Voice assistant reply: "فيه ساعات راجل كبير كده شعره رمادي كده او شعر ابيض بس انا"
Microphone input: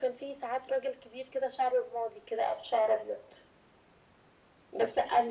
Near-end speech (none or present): none